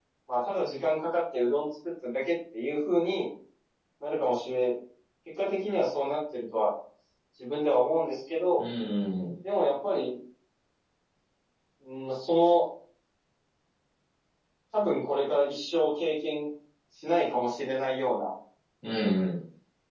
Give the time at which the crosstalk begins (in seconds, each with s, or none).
none